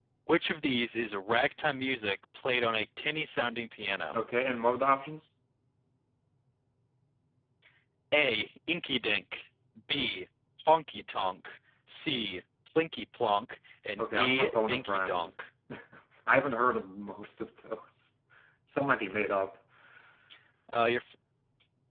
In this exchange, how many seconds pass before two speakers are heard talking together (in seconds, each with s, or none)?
14.0 s